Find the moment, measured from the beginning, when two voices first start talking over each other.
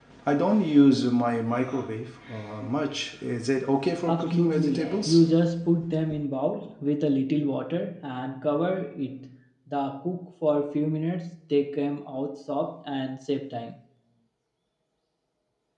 4 s

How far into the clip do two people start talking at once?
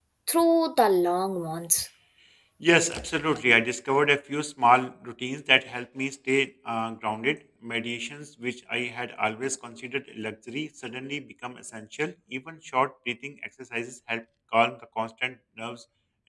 none

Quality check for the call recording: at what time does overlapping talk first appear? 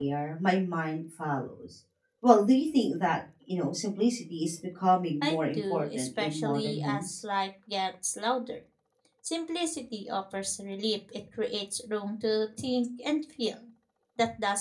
5 s

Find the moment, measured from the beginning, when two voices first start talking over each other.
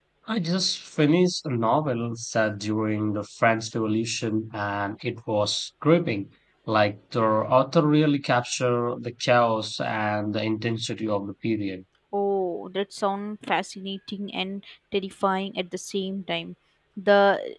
none

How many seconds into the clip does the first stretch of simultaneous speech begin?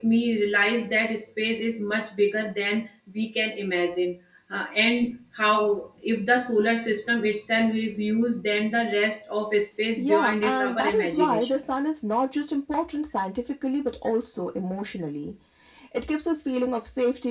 10 s

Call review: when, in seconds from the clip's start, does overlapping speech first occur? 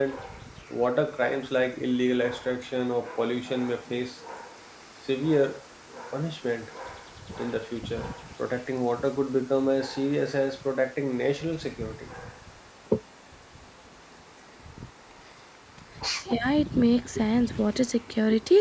none

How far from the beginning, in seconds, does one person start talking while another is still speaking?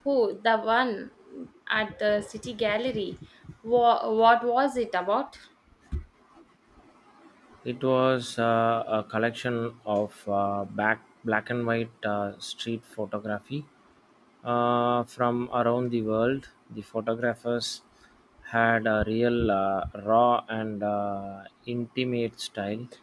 none

